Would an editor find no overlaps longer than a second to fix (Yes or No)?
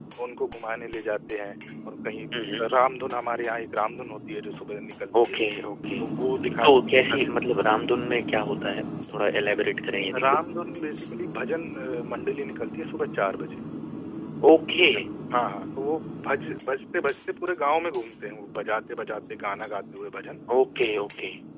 No